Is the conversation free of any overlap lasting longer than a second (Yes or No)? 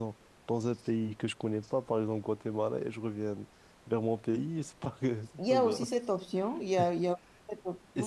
Yes